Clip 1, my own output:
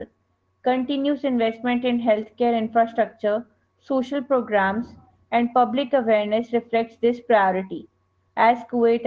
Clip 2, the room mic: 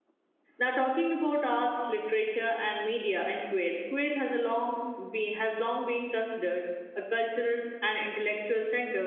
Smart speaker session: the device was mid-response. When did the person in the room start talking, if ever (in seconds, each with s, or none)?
0.6 s